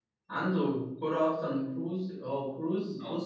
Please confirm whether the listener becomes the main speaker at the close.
Yes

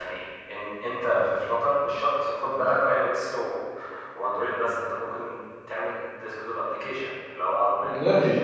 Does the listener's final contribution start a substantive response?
No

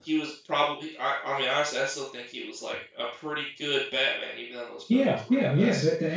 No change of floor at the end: No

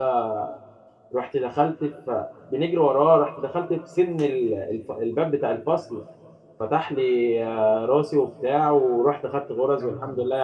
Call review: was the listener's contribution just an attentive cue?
Yes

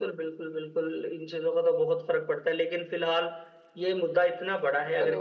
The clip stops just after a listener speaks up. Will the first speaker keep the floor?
Yes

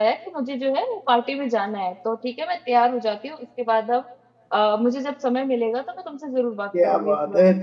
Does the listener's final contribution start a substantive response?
Yes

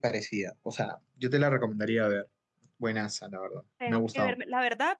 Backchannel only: No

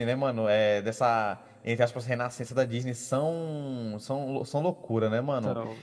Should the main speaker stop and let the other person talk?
No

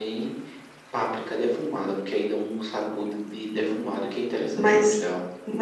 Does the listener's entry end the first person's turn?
Yes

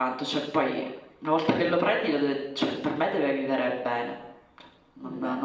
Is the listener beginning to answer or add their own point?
No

